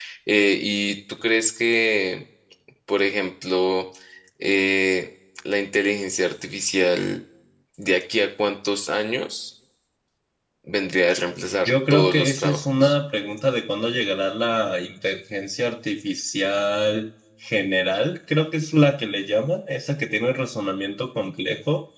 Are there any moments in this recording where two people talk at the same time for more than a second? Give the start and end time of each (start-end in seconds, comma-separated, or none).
11.7-13.0